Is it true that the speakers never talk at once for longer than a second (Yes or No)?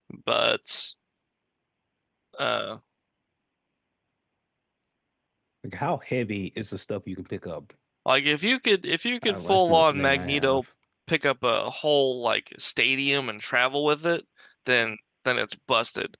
No